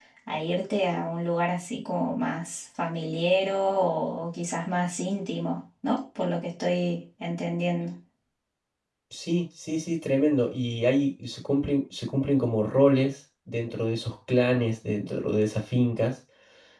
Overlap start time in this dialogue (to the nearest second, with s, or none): none